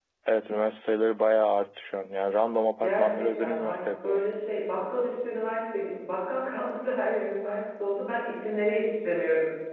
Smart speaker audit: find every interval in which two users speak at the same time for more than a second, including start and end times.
2.8-4.2

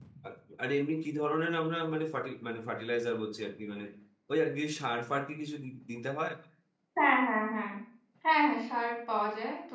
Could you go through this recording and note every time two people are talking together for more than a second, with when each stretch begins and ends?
none

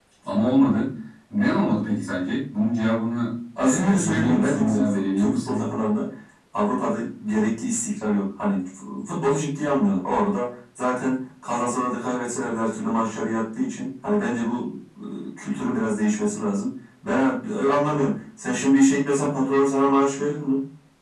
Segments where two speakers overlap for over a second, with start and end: 3.6-5.6

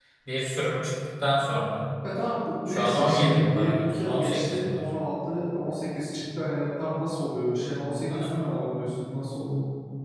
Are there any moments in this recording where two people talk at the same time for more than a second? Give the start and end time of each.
2.7-4.8

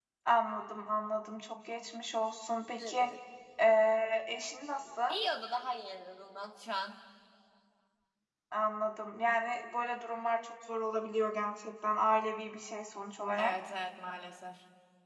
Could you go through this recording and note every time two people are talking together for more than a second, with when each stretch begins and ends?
none

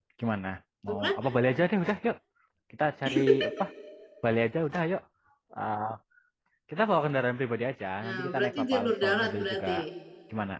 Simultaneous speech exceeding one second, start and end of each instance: 8.0-9.7

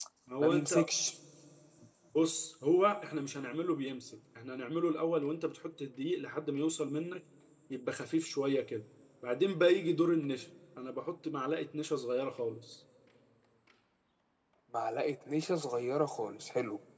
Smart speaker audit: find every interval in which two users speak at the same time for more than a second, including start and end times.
none

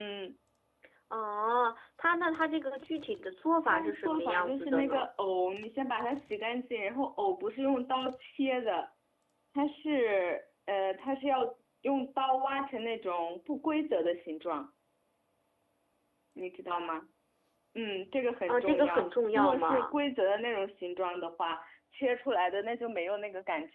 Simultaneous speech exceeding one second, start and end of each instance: 3.6-5.1, 18.5-19.9

